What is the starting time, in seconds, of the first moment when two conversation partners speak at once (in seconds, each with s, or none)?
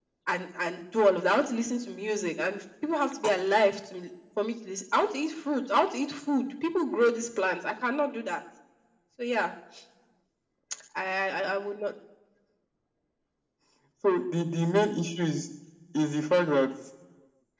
none